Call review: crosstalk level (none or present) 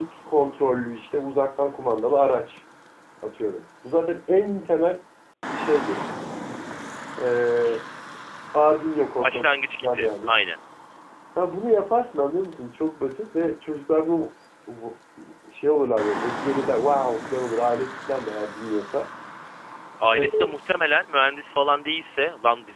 present